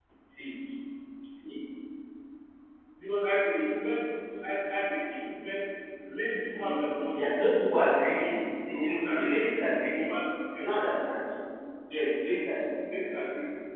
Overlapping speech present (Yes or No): Yes